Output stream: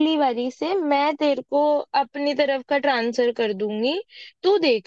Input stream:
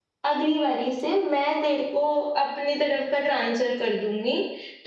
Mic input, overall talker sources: echo only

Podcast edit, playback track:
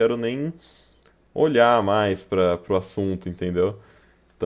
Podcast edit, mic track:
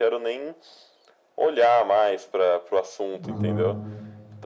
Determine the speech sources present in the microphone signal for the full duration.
both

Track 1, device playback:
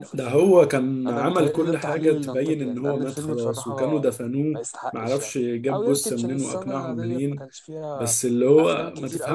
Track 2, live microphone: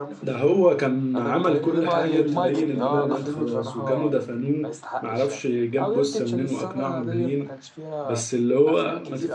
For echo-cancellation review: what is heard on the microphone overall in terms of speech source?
both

